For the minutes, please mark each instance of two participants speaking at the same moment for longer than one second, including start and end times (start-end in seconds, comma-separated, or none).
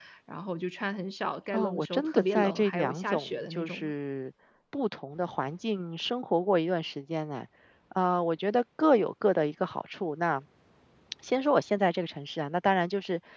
1.5-3.9